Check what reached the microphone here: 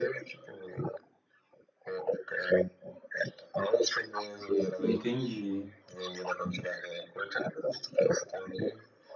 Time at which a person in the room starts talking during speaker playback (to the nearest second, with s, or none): 5 s